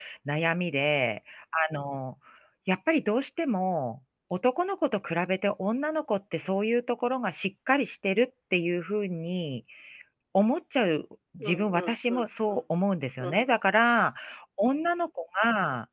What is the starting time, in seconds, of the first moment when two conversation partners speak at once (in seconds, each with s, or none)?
11.4 s